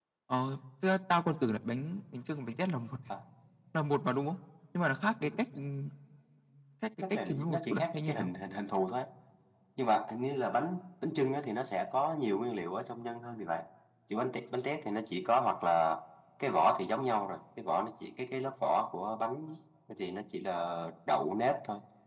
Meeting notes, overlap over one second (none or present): present